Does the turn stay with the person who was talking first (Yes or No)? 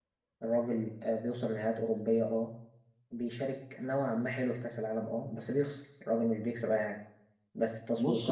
Yes